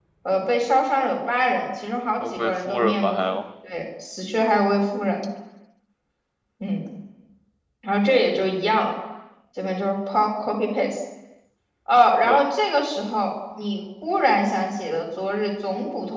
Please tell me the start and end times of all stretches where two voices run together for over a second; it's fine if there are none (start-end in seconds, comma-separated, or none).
2.2-3.4